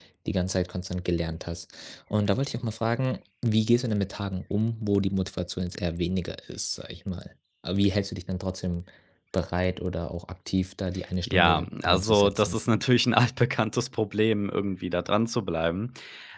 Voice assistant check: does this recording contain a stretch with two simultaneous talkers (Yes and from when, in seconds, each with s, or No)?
Yes, from 11.3 s